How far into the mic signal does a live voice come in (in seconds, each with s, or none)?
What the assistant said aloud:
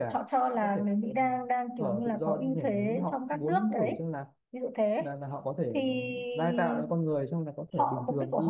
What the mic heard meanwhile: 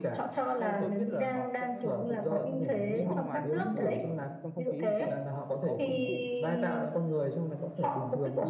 0.6 s